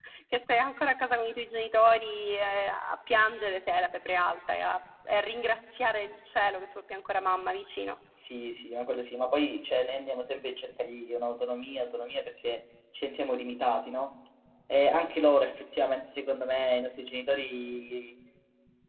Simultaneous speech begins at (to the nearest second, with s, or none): none